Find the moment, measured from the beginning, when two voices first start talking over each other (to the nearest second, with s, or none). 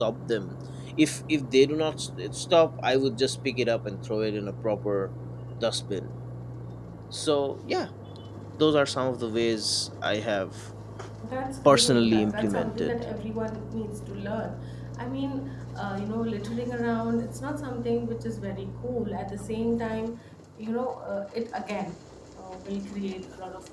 12 s